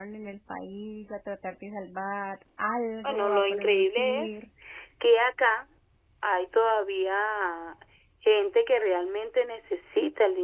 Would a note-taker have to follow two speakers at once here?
Yes, from 3.0 s

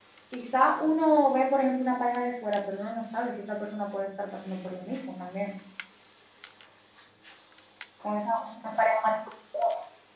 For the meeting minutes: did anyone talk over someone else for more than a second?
No

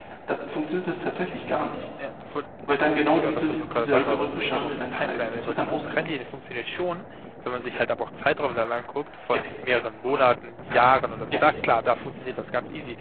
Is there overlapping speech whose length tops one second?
Yes, from 3.2 s

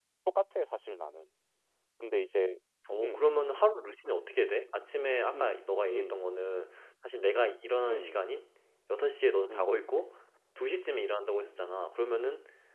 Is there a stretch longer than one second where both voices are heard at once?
No

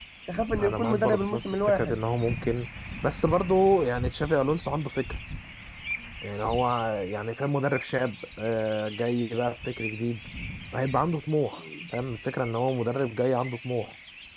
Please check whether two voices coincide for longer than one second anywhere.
Yes, from 0.6 s

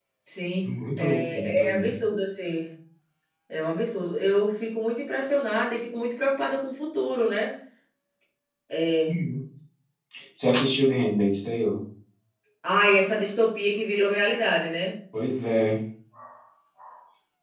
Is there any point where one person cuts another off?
Yes, from 0.6 s

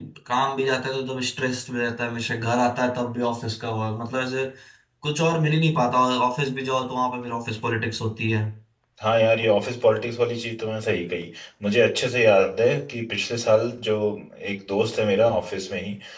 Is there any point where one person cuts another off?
No

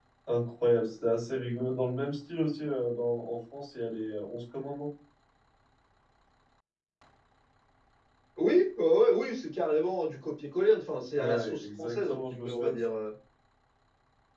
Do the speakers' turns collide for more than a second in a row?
Yes, from 11.1 s

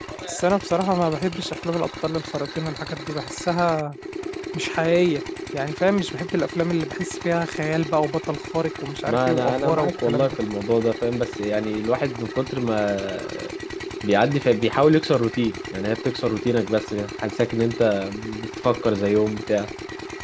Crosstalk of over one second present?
Yes, from 9.1 s

